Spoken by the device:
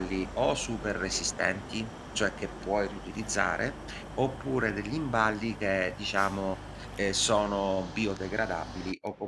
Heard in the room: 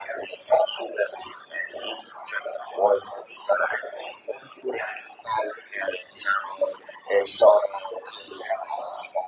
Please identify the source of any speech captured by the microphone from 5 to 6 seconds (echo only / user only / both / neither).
echo only